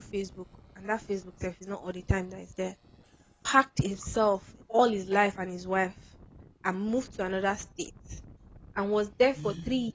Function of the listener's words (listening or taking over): listening